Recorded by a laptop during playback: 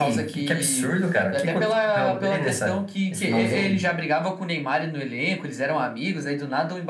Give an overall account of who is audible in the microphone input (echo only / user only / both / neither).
echo only